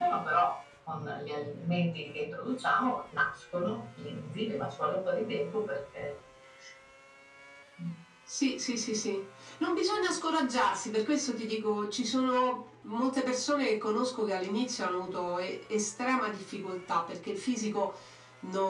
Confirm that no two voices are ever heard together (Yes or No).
Yes